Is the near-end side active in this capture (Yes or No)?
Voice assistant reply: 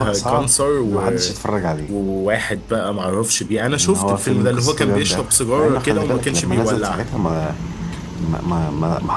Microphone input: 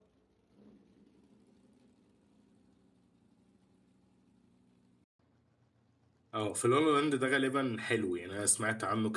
Yes